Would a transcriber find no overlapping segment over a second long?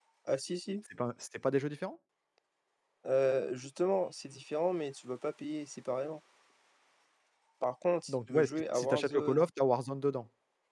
No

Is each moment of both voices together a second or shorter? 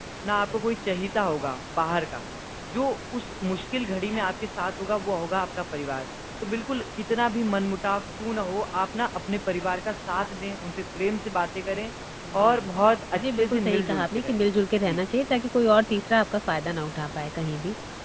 No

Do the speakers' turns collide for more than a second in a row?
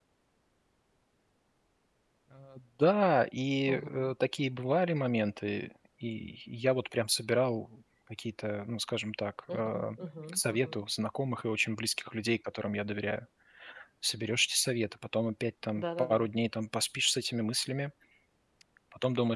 No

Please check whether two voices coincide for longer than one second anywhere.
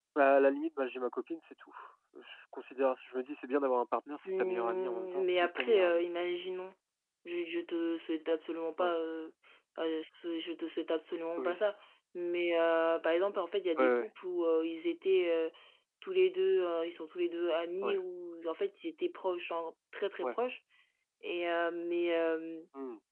Yes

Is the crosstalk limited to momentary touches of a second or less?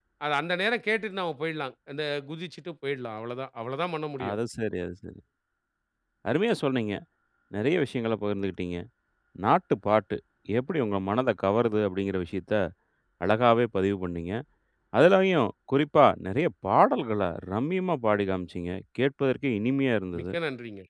Yes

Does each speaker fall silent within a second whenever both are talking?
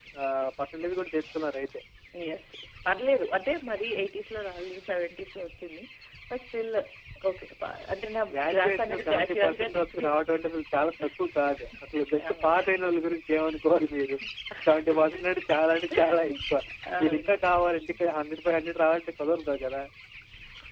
No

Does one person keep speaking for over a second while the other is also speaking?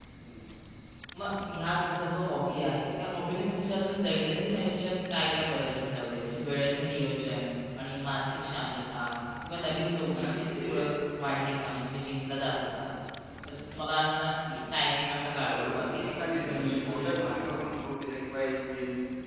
Yes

